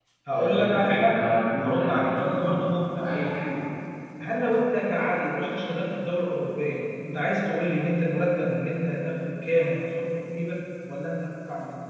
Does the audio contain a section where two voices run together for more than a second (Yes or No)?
Yes